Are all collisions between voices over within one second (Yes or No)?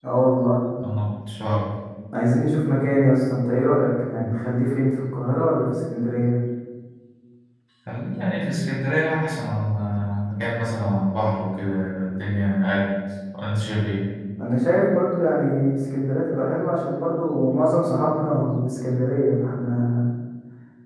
Yes